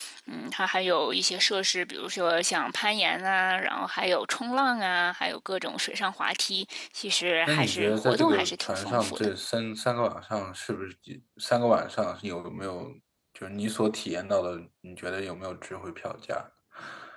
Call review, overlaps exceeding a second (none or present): present